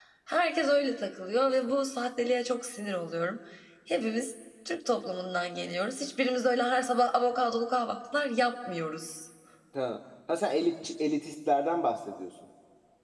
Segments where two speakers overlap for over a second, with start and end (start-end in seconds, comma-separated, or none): none